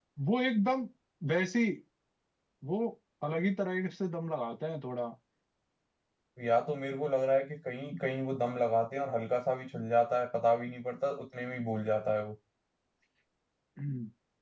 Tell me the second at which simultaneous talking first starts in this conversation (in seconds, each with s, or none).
none